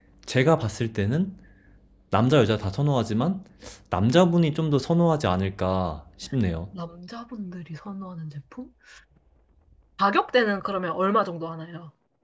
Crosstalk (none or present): none